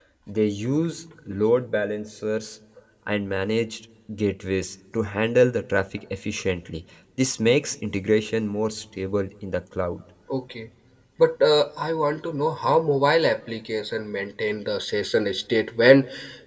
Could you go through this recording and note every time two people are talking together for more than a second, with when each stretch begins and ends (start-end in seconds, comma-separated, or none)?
none